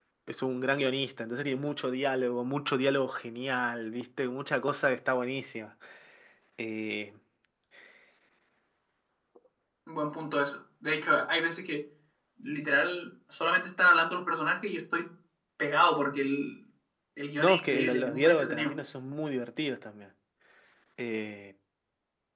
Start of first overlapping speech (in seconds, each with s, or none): 17.4 s